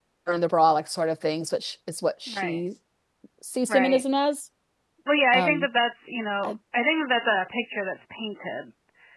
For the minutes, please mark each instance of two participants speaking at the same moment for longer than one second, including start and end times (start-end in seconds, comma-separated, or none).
none